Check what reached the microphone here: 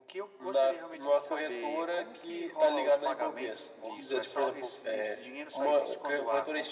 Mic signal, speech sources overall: echo only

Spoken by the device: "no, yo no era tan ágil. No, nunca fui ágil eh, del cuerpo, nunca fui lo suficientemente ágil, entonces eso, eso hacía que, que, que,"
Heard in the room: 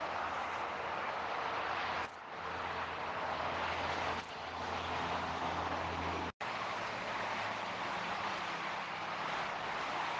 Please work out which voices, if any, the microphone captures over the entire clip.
neither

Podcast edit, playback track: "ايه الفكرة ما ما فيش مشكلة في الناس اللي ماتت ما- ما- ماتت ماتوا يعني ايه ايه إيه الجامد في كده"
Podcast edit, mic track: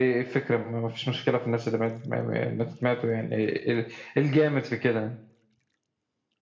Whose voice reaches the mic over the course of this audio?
echo only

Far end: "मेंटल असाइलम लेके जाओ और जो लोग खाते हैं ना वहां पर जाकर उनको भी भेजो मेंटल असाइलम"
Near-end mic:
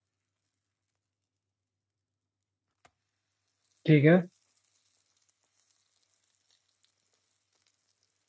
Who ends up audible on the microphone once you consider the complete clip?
user only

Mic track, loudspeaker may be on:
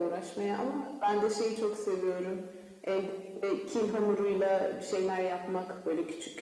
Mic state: echo only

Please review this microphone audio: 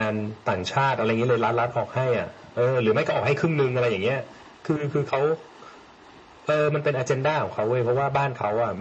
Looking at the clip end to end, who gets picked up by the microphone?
echo only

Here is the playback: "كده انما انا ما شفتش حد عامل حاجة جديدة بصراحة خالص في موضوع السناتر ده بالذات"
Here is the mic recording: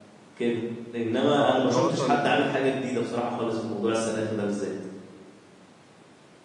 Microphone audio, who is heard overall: both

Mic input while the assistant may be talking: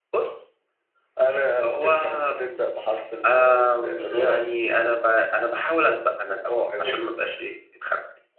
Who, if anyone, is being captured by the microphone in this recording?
echo only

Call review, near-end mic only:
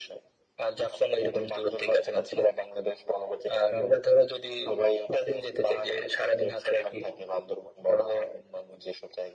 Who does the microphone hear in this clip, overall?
echo only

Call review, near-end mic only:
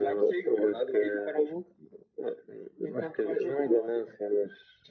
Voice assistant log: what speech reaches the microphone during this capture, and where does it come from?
echo only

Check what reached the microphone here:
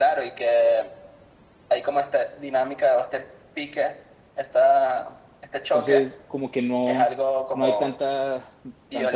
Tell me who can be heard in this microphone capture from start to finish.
both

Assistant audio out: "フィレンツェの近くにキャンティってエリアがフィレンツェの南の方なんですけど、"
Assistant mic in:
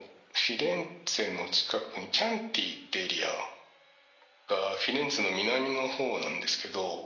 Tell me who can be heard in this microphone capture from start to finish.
echo only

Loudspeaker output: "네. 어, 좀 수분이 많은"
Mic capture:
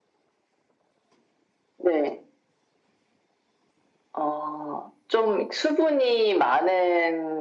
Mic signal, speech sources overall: echo only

